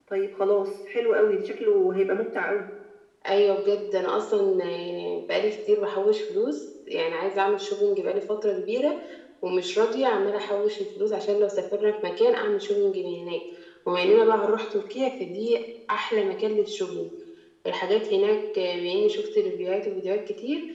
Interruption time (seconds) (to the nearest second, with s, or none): none